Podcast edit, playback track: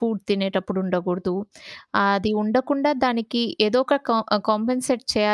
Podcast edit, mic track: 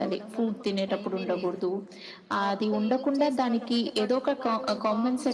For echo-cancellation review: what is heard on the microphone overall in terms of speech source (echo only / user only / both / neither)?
both